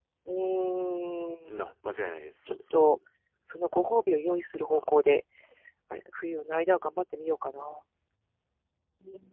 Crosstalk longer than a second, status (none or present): none